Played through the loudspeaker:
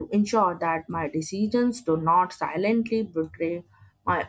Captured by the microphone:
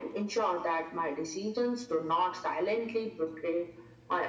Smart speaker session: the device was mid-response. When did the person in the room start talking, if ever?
none

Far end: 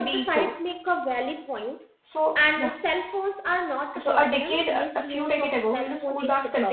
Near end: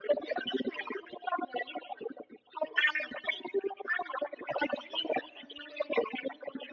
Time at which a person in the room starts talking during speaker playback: none

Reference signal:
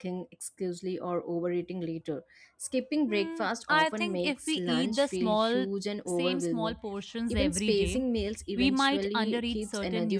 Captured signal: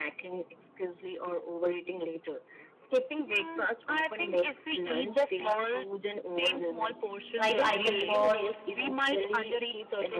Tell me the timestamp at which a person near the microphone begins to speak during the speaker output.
7 s

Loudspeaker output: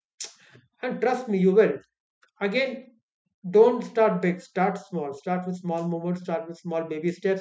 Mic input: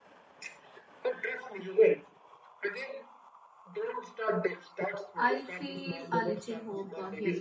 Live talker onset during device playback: 5 s

